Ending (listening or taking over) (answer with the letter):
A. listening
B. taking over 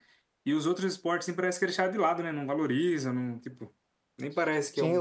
B